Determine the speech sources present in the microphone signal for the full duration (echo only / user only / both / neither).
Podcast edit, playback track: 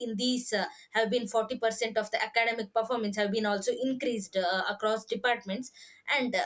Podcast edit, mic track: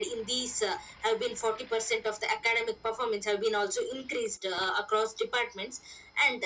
echo only